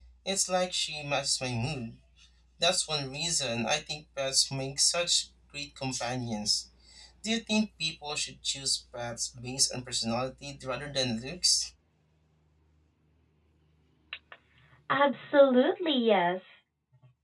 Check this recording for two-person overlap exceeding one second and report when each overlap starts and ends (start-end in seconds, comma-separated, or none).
none